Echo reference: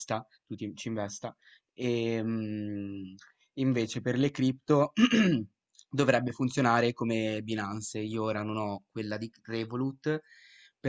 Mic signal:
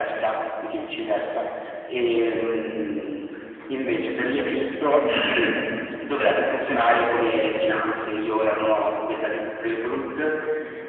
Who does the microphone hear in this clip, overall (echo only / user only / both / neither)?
echo only